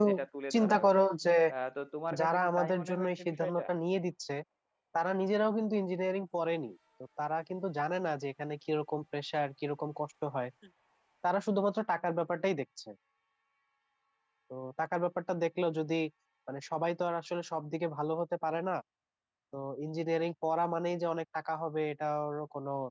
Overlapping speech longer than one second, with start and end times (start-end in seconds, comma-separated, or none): 2.2-3.6